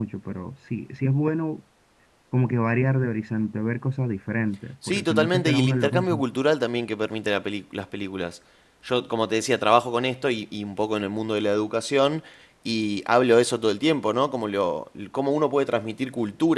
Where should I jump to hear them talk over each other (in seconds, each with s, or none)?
4.8 s